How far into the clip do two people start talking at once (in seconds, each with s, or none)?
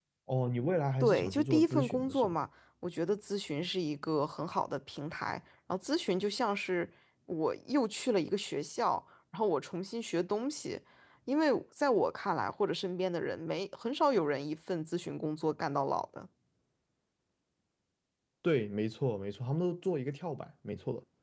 1.0 s